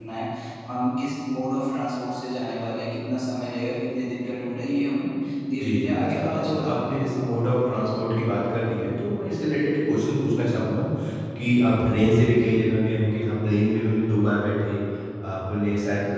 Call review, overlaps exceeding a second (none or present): present